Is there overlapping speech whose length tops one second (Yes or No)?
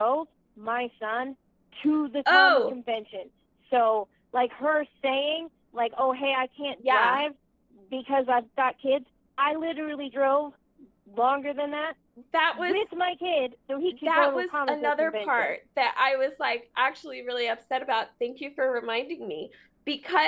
Yes